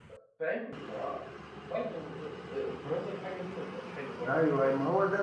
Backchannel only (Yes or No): No